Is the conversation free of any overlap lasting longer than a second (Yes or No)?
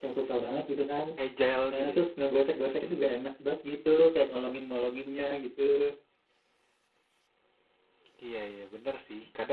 Yes